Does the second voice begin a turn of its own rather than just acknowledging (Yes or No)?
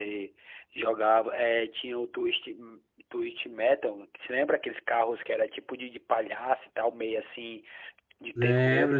Yes